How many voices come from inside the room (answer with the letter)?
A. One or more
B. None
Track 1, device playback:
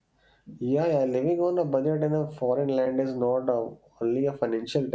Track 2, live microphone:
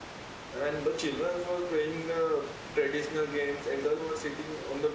A